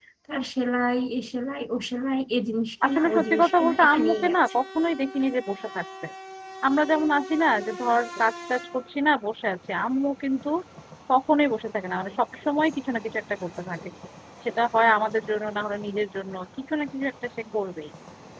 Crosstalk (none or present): present